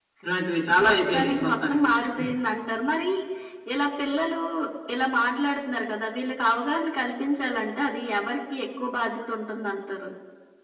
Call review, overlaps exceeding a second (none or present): present